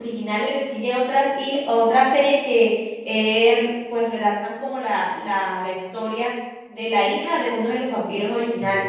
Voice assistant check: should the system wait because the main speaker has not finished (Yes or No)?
No